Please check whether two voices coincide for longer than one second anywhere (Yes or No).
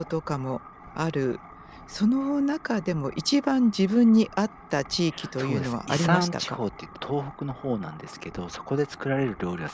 Yes